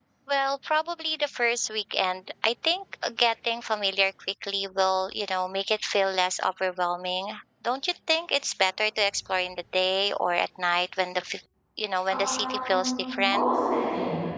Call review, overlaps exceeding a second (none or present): present